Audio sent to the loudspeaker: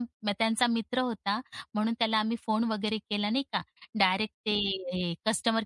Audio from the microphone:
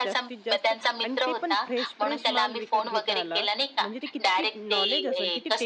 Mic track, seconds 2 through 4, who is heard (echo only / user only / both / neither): both